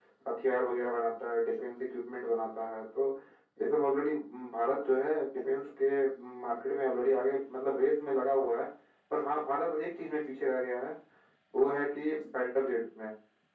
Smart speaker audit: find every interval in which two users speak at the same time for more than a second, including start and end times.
none

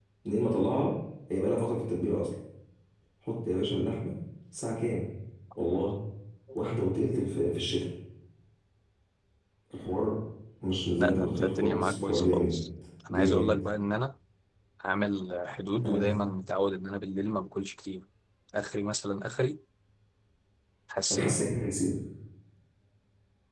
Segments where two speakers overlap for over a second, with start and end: 11.0-12.5

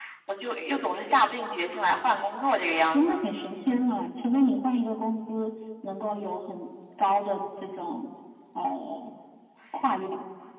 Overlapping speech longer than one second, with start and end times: none

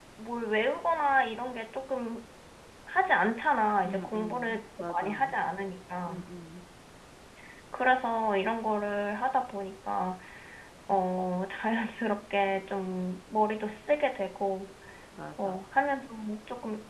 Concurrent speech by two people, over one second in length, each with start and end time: 3.8-5.3

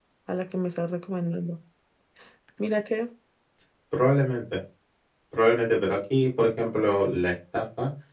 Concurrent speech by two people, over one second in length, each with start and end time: none

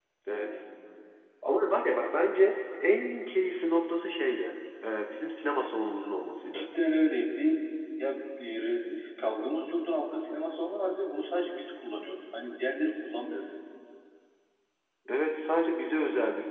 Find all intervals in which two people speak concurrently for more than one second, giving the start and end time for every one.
none

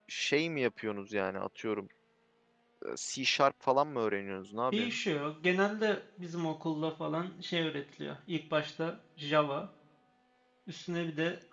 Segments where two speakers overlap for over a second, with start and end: none

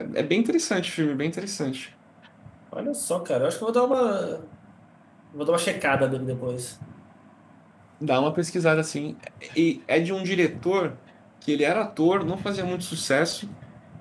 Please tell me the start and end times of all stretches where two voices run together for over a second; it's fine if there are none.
none

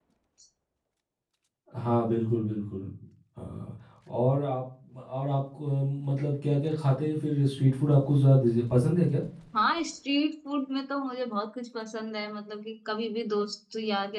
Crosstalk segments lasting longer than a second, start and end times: none

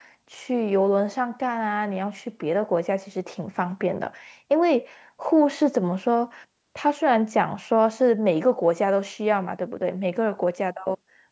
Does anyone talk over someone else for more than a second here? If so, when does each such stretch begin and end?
none

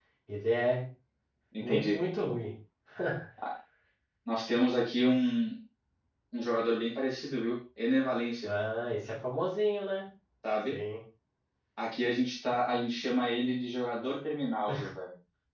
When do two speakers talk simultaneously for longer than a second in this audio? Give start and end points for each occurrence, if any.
none

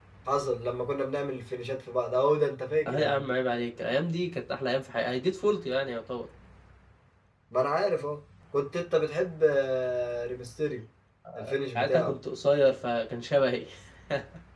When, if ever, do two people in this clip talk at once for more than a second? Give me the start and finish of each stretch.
none

